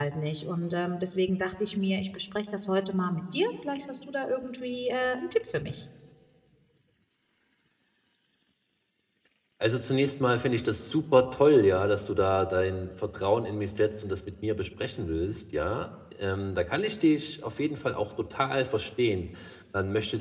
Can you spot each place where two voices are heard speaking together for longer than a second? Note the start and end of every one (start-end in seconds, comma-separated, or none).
none